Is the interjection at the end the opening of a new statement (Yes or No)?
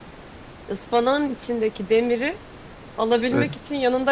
No